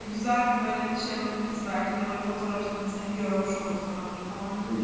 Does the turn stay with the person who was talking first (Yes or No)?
No